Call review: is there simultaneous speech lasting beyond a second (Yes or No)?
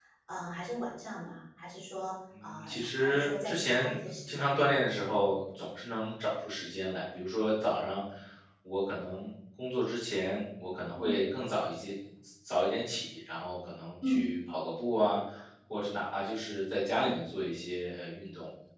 Yes